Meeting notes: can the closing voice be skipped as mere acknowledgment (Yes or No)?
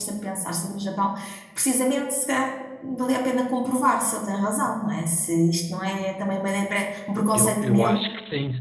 No